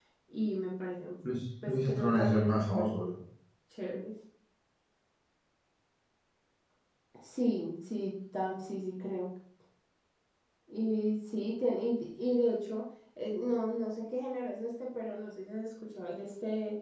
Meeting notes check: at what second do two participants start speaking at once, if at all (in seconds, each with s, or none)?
1.7 s